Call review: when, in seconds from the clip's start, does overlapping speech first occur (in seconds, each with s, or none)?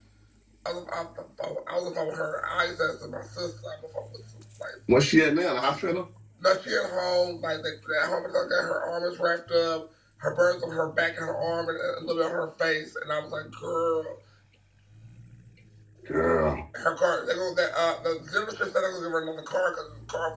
none